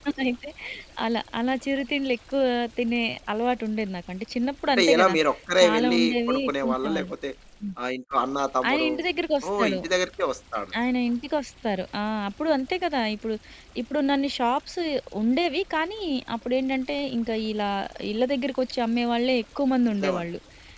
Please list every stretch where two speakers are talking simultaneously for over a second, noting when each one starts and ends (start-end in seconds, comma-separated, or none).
5.6-7.1